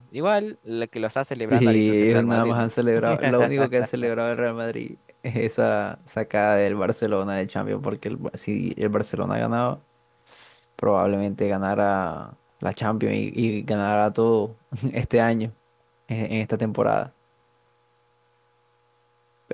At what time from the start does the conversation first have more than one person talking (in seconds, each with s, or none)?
1.4 s